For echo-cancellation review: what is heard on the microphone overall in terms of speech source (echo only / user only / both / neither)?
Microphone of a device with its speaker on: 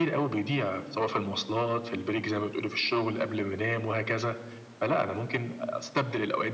echo only